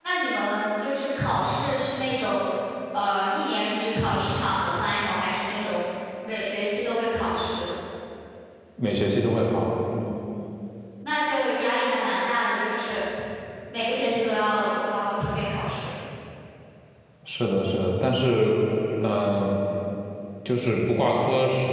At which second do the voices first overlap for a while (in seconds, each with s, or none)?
none